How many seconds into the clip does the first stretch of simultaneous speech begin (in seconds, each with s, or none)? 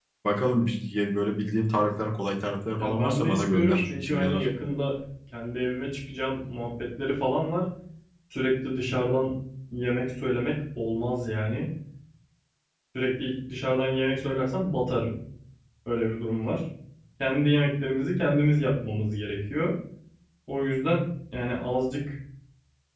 2.8 s